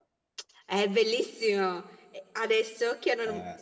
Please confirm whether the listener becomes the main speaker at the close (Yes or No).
No